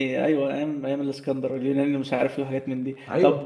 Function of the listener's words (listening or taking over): listening